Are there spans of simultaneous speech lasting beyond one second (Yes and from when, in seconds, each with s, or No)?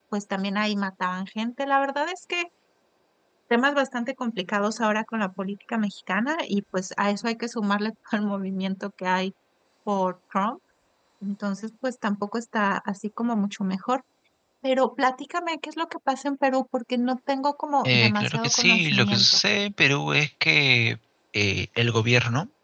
Yes, from 17.8 s